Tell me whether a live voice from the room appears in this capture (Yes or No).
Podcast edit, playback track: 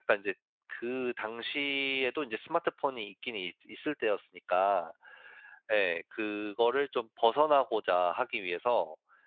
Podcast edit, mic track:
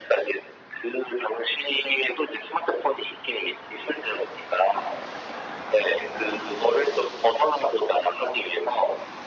No